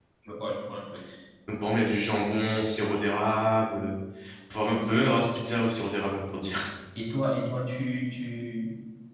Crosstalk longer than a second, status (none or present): none